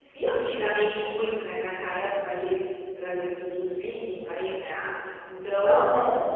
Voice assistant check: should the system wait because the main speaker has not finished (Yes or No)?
No